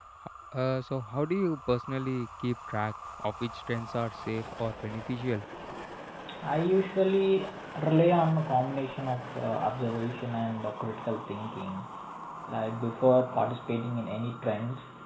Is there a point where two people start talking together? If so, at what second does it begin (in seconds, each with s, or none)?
none